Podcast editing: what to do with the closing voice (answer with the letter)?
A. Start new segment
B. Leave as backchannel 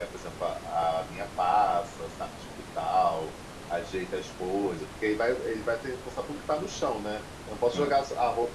B